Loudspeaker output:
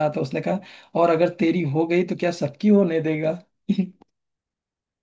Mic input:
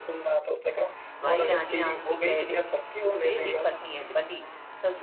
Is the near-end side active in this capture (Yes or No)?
Yes